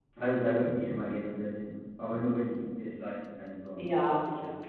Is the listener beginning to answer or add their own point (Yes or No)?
Yes